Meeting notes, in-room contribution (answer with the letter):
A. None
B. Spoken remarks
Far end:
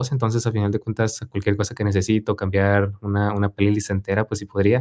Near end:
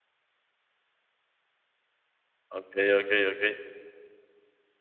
B